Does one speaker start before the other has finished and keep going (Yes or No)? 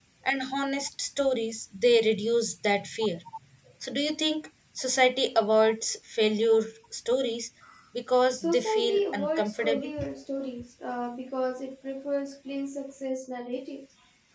Yes